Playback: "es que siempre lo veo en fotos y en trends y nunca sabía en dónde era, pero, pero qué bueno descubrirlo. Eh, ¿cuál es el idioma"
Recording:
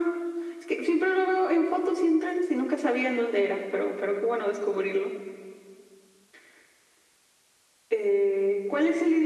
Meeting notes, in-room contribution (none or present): none